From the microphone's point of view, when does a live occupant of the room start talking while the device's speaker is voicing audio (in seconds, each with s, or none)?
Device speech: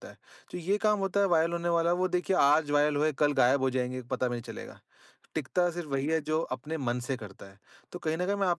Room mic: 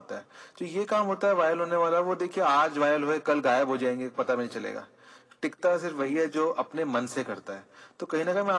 none